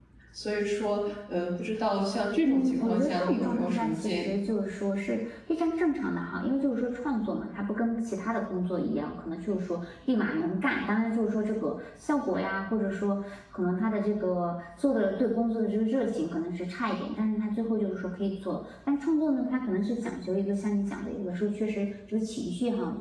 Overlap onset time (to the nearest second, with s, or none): 2 s